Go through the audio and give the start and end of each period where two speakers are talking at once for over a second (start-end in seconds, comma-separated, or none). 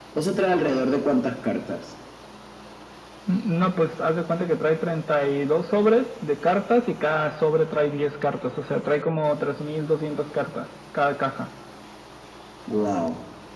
none